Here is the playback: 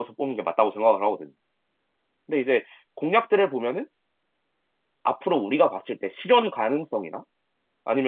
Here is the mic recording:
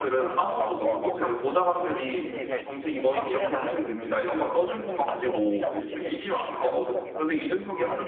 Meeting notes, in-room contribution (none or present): present